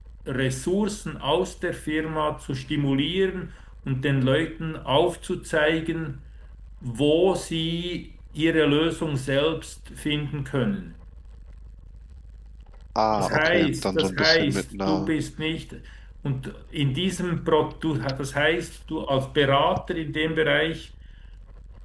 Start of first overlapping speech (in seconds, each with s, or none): 13.1 s